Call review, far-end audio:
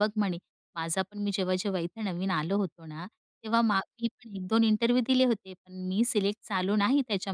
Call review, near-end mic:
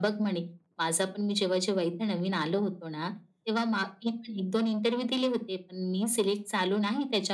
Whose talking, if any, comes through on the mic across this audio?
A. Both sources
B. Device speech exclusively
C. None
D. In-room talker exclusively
B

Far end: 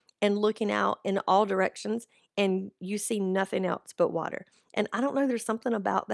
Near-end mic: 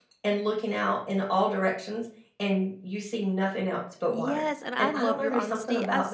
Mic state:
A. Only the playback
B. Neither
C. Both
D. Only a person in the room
C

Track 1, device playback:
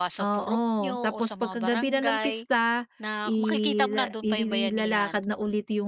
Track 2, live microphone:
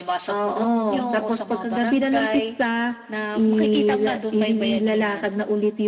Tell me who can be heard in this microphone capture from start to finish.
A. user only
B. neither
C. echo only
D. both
C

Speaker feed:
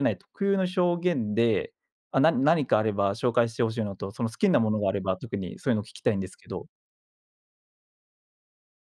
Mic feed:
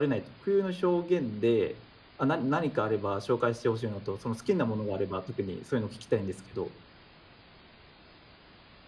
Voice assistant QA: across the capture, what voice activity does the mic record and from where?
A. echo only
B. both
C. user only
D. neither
A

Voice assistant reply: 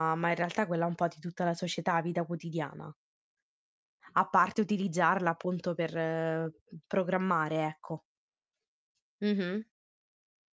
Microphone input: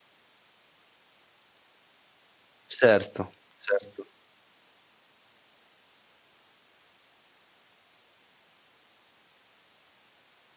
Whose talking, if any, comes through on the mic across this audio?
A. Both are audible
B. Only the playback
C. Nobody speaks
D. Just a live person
D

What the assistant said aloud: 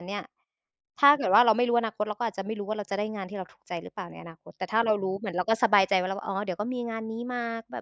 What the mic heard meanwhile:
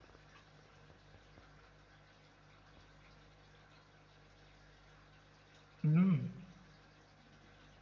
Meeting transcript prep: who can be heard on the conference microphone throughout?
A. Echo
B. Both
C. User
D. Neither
C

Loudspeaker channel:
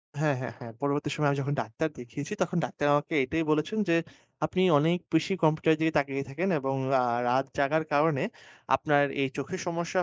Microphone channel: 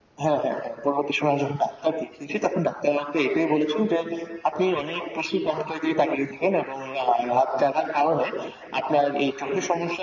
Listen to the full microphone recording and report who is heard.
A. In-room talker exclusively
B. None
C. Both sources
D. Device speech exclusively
D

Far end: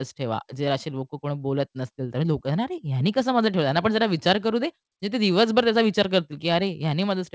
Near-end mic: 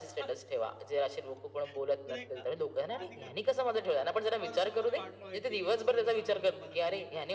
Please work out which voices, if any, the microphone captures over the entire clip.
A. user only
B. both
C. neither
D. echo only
B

